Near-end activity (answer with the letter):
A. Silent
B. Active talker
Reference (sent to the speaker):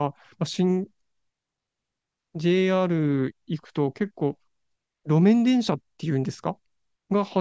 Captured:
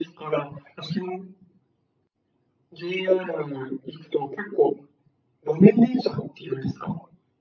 A